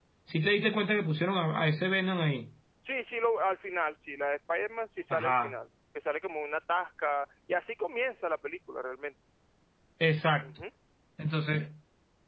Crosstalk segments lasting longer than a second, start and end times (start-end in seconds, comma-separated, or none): none